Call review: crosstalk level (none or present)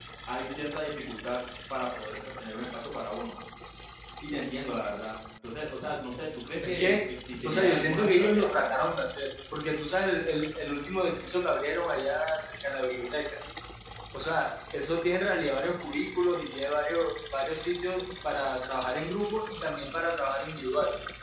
present